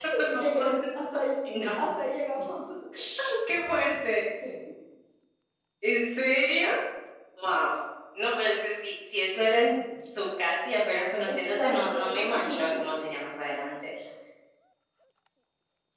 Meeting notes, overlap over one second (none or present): present